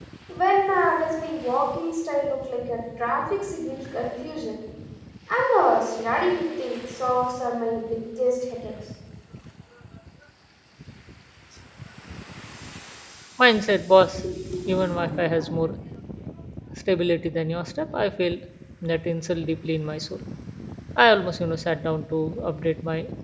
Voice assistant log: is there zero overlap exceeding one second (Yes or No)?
Yes